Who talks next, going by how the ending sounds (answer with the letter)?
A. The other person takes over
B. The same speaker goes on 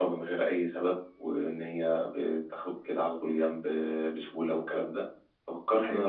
B